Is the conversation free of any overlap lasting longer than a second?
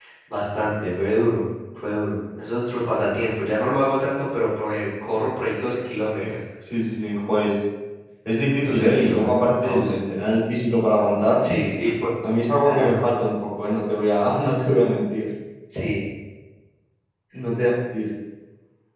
No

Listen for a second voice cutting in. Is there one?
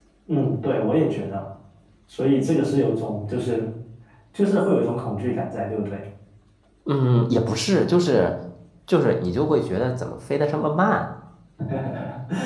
No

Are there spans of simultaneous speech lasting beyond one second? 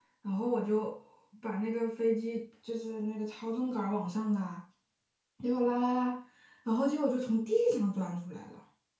No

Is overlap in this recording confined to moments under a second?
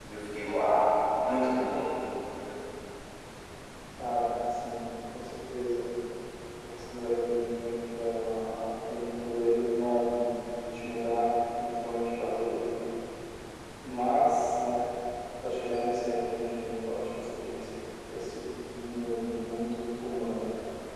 Yes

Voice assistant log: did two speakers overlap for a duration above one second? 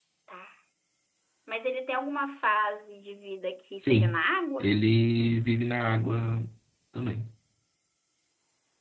No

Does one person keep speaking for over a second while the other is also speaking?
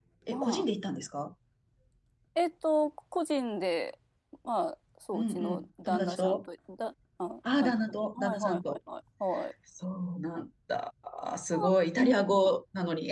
Yes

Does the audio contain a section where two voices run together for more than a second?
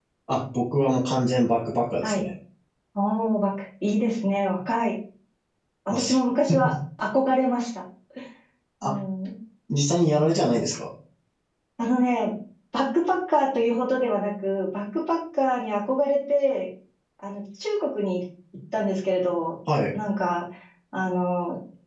No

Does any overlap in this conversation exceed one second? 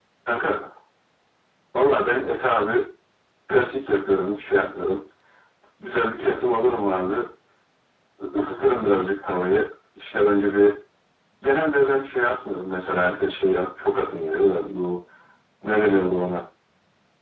No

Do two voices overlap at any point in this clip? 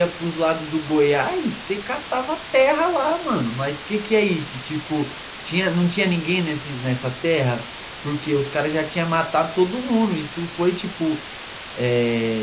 No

